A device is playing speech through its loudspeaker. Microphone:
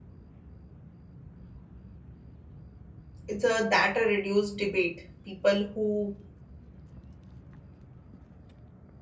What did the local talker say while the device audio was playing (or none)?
is a, that a reduced debate. People who